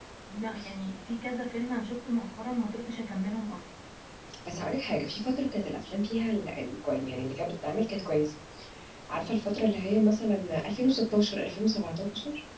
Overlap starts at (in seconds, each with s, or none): none